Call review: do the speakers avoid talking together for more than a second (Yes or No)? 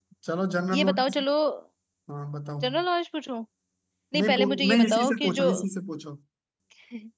No